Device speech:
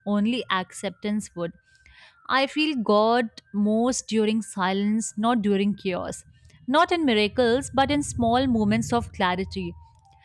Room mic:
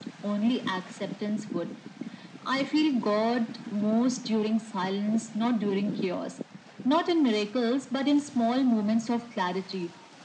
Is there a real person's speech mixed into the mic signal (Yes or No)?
No